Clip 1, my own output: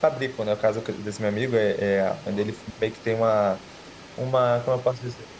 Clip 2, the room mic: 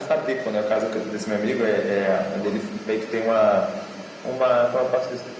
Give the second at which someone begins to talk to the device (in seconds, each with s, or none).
none